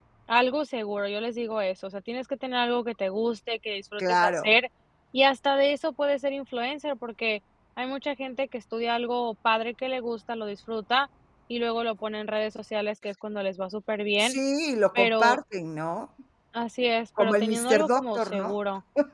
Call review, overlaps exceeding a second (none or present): present